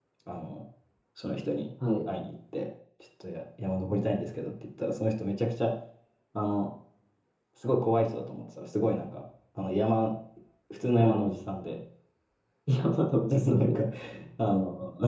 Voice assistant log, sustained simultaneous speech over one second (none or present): none